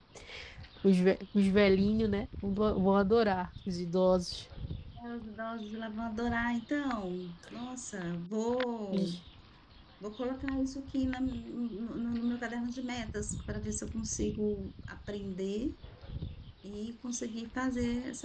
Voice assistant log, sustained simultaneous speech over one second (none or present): none